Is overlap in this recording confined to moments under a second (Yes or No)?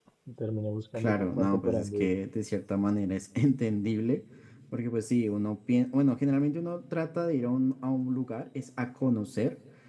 No